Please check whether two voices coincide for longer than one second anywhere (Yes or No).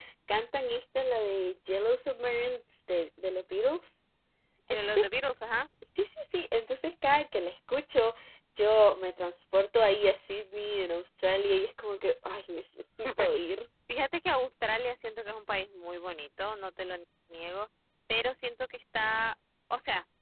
No